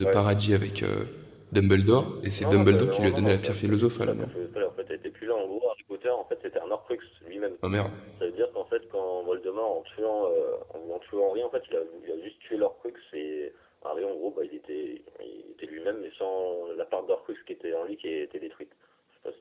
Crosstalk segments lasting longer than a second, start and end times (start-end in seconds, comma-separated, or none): 2.4-4.3